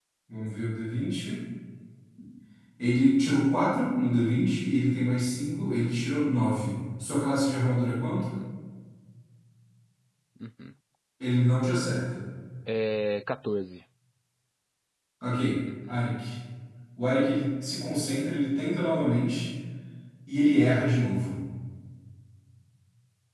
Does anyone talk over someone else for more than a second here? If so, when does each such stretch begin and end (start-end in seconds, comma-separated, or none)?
none